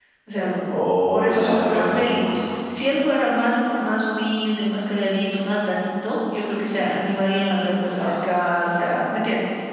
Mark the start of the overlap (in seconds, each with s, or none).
1.1 s